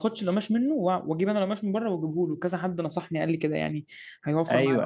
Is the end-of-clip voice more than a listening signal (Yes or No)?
Yes